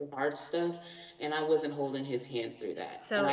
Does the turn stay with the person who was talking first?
No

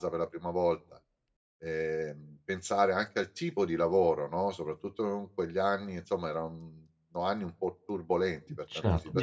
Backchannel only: No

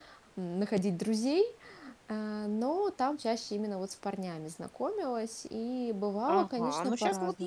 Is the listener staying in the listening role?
No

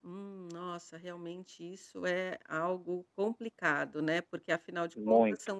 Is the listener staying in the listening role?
Yes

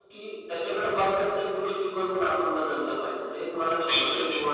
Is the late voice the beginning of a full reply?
No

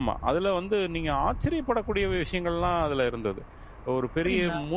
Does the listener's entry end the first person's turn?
No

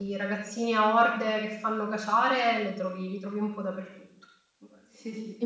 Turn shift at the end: Yes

